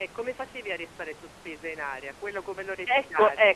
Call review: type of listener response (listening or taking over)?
taking over